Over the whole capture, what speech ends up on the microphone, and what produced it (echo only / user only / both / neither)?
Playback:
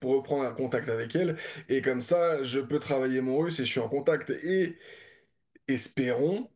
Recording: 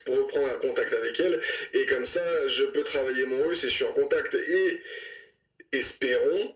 echo only